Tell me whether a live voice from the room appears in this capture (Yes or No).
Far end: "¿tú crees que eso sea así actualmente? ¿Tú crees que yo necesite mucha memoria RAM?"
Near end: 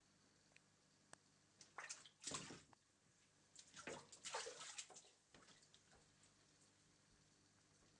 No